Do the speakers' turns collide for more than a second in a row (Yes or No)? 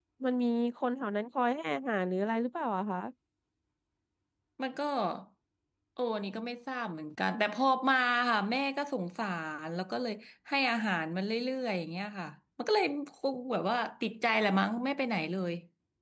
No